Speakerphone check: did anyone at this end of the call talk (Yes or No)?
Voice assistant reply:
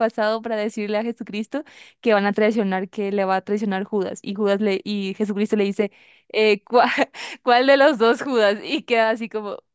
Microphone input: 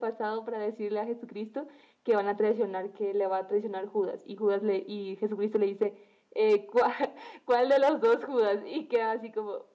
No